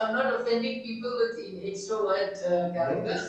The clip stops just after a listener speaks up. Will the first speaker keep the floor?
No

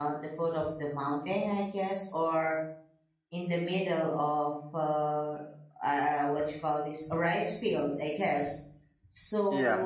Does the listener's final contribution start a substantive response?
No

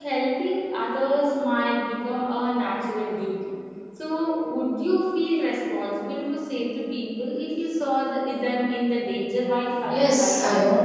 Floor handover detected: Yes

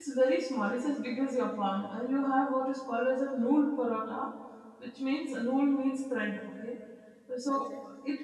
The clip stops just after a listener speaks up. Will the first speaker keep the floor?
Yes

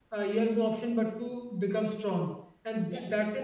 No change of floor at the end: Yes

